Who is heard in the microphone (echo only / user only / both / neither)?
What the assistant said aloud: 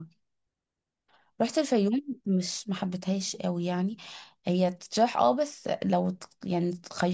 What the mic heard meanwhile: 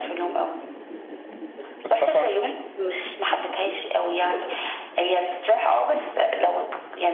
both